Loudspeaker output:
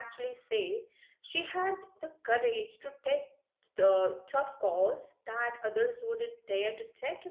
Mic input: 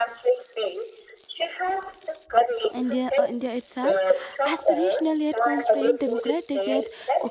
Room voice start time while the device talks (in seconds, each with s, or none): 2.7 s